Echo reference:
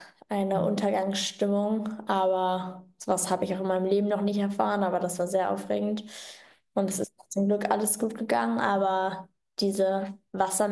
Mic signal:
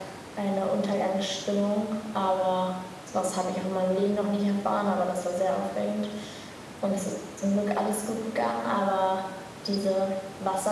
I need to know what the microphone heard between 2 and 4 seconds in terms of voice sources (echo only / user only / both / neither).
echo only